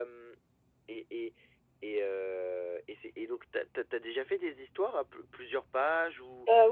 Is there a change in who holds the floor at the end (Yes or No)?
No